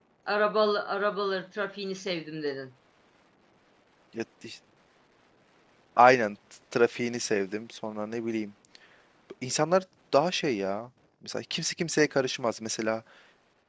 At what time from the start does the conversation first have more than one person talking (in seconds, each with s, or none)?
none